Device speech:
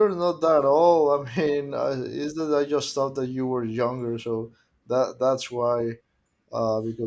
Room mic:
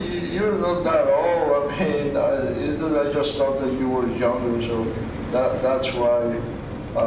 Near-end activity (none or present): none